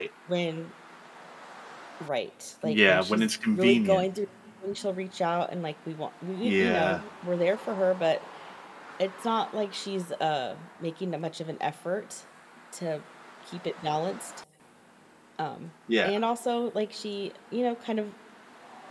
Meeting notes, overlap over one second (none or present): present